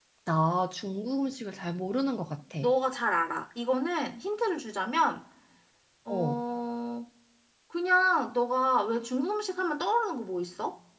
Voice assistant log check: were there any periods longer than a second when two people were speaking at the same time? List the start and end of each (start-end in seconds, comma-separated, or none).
none